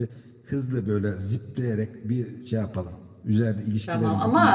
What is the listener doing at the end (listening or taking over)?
taking over